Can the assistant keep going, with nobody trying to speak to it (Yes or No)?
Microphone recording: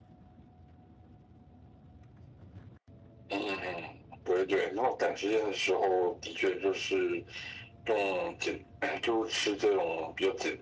Yes